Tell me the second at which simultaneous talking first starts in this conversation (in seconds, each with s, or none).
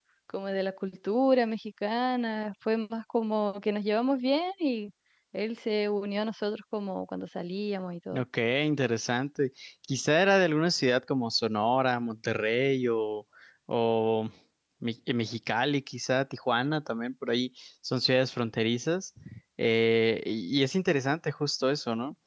none